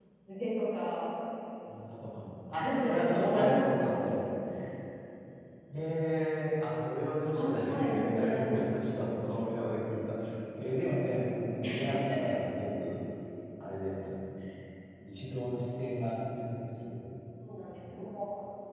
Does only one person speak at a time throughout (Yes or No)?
No